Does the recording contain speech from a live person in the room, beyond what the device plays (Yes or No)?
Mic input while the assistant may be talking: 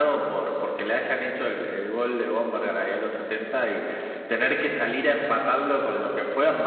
No